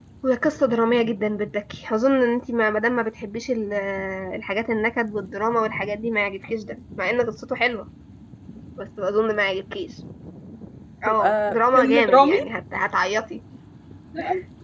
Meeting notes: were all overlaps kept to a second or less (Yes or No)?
No